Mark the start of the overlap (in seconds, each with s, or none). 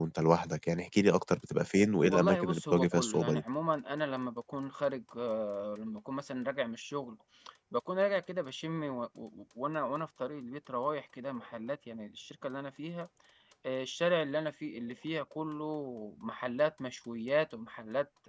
2.1 s